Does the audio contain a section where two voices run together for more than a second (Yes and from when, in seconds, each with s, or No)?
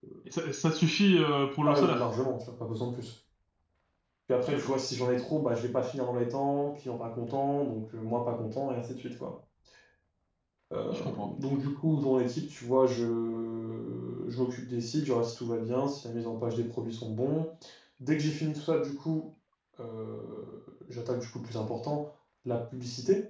No